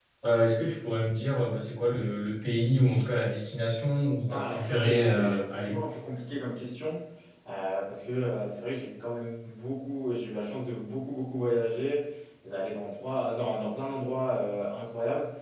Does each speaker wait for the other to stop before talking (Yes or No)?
No